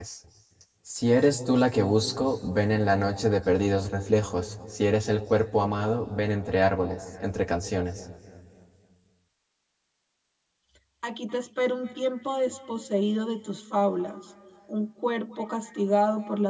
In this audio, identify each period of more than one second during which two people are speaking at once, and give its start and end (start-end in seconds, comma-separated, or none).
none